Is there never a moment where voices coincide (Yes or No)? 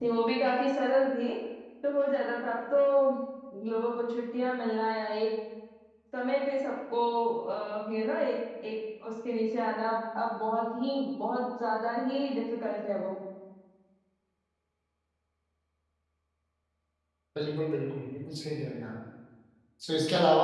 Yes